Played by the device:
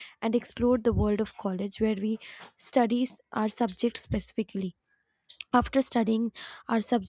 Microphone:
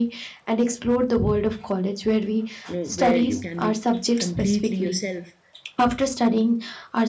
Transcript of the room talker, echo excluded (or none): you know where you can be completely yourself